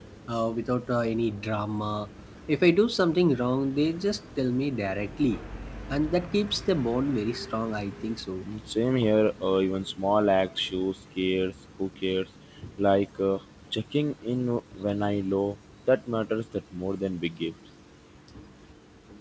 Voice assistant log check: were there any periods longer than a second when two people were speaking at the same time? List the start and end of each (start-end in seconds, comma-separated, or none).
none